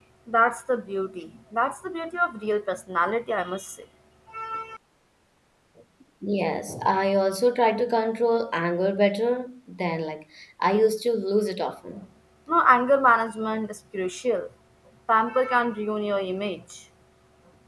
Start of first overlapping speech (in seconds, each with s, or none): none